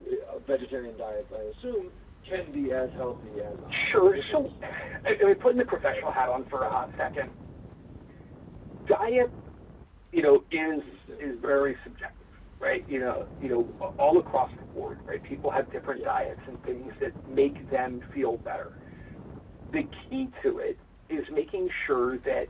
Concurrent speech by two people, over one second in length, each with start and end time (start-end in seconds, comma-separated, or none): 3.7-5.2